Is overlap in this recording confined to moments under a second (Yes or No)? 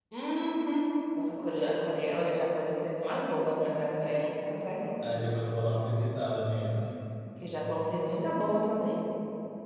Yes